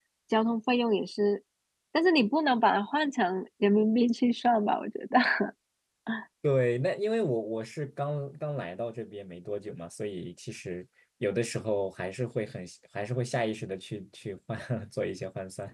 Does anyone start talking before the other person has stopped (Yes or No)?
No